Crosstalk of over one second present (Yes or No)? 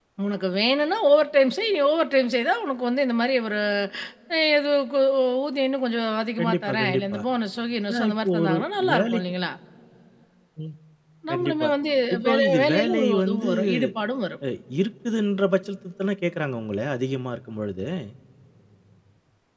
Yes